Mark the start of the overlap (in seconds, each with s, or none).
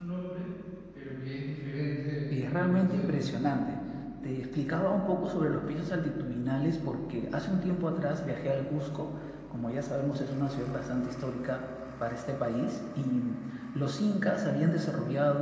2.3 s